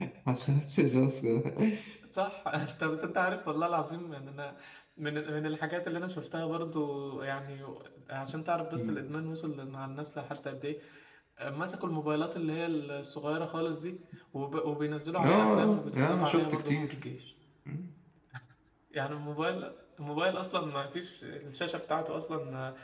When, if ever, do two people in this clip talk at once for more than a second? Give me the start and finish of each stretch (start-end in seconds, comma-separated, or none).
15.2-16.9